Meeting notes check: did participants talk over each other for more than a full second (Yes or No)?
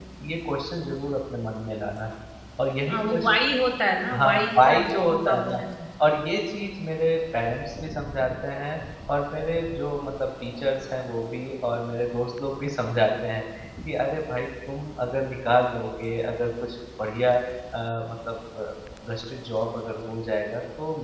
Yes